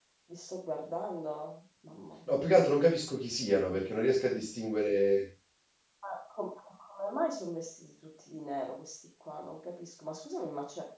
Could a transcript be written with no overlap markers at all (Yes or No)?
Yes